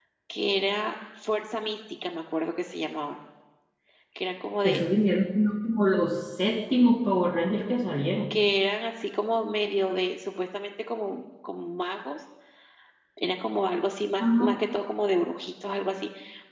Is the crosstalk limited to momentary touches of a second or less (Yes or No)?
Yes